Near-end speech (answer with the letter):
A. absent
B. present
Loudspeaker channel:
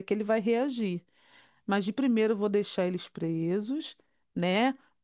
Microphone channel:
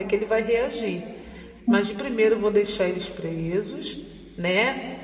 B